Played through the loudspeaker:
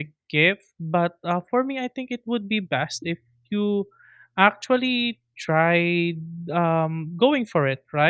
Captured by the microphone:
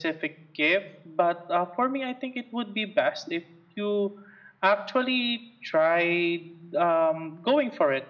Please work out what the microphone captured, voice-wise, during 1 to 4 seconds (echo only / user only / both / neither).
echo only